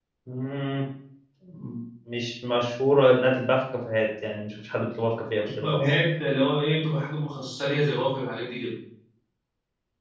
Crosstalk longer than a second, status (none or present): none